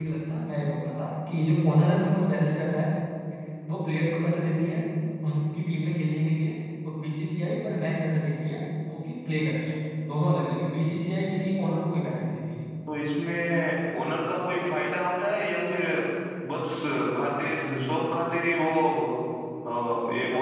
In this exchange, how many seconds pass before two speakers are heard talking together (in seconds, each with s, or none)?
none